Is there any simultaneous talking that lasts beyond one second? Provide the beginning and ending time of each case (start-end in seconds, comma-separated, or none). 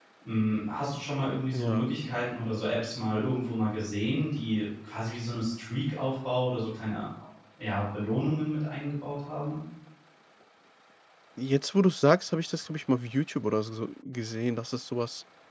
none